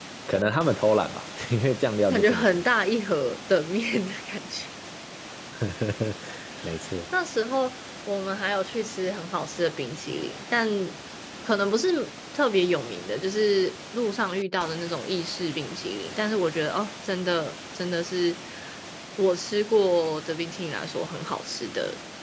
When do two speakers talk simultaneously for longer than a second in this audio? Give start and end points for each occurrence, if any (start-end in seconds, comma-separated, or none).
none